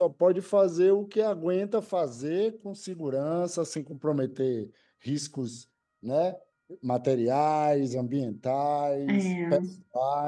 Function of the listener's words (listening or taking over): listening